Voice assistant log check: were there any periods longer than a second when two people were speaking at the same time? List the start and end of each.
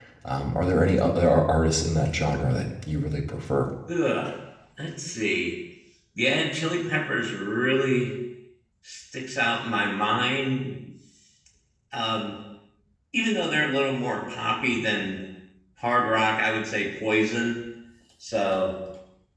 none

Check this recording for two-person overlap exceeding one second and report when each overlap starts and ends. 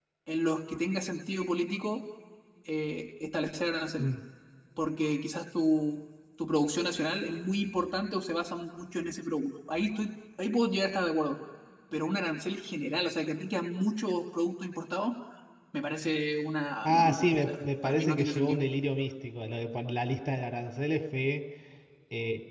16.8-18.6

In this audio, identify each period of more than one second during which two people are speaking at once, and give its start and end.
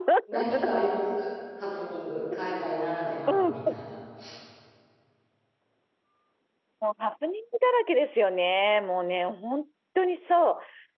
none

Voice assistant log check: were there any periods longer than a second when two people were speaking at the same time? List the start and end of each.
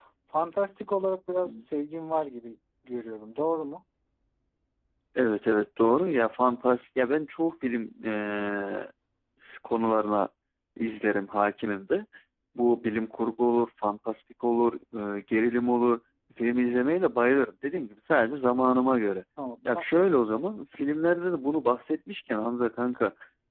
none

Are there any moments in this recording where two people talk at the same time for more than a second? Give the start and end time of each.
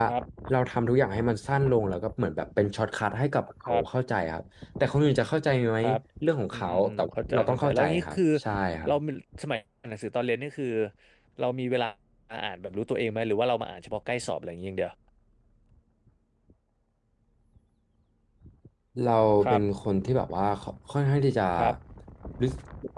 6.5-8.2

